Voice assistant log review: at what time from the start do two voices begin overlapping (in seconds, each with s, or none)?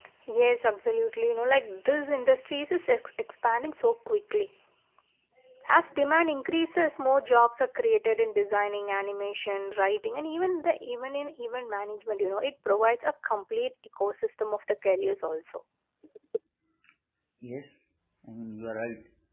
none